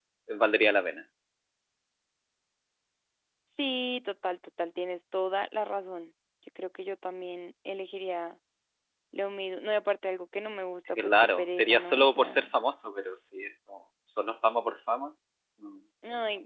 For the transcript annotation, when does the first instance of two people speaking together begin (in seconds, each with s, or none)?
11.0 s